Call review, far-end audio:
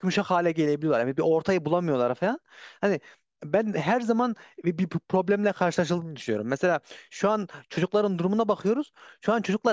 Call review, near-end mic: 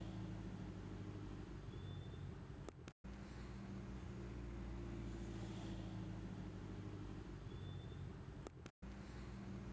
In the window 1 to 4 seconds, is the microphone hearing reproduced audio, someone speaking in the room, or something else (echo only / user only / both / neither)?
neither